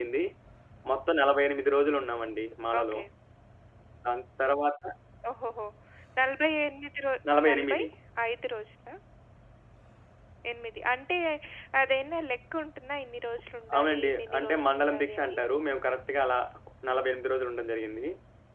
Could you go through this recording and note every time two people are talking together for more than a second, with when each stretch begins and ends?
13.8-15.4

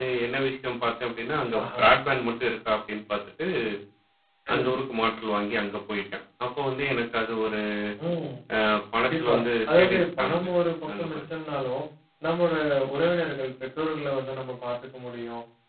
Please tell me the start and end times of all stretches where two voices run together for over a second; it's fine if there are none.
9.0-10.5

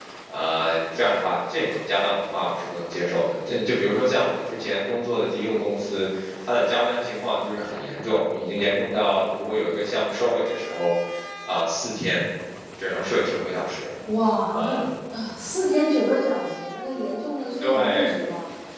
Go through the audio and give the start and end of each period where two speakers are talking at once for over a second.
none

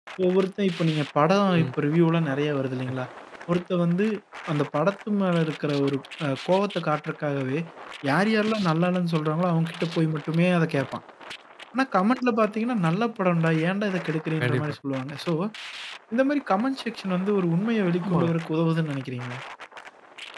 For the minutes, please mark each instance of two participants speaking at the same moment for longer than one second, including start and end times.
none

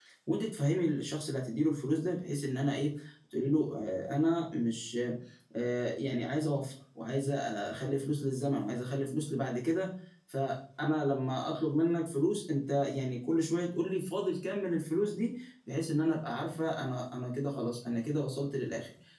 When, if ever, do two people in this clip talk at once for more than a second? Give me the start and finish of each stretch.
none

